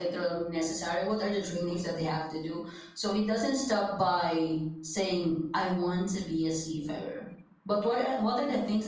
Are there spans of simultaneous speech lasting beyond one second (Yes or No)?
No